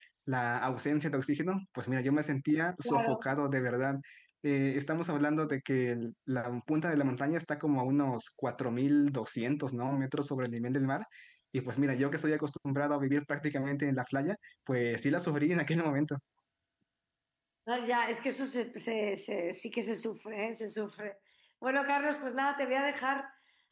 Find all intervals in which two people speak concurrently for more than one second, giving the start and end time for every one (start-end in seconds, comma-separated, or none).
none